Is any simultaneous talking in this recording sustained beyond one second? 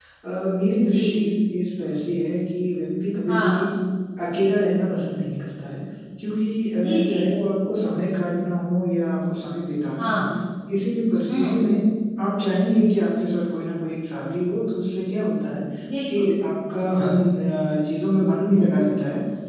No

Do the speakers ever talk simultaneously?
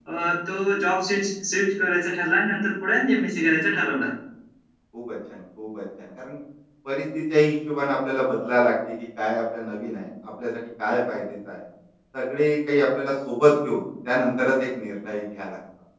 No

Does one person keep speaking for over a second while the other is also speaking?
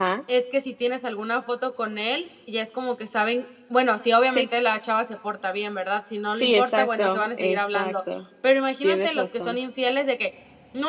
Yes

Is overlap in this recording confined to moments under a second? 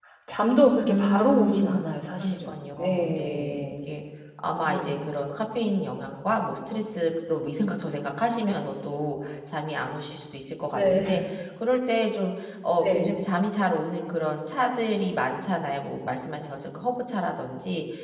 No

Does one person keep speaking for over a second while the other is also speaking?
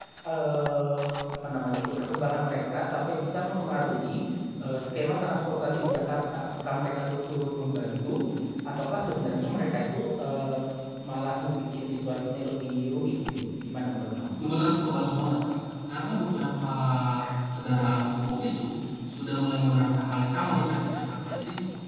No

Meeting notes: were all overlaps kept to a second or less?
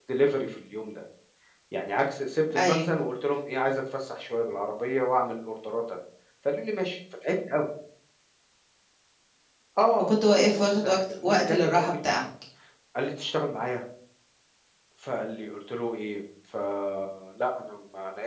No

